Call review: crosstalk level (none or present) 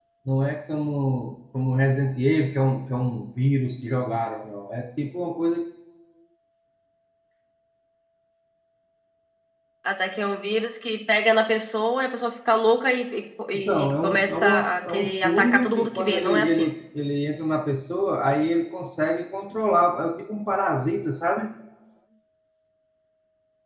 present